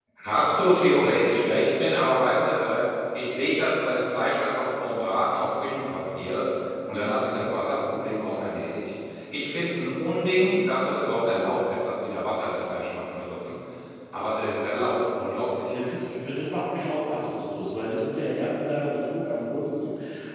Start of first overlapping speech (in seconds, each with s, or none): none